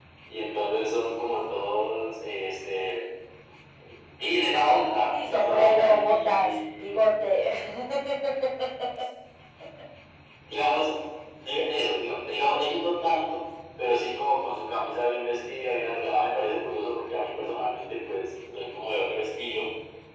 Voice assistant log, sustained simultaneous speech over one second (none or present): present